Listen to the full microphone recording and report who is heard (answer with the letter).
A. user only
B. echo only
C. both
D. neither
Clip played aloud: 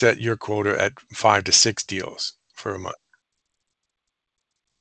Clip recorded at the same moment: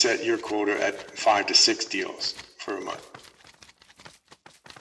B